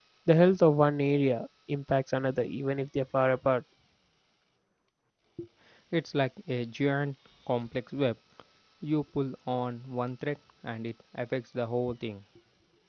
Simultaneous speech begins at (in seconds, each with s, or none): none